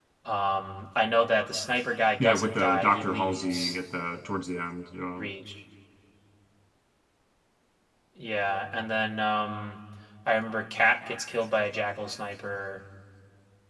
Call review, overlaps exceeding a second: present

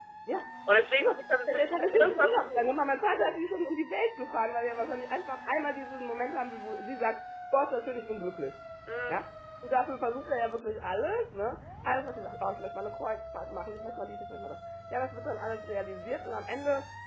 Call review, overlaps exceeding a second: present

